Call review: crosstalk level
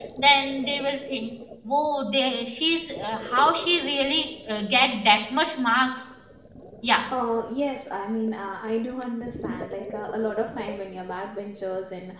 none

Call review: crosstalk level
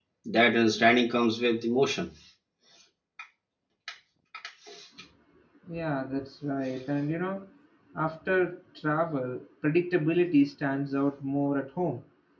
none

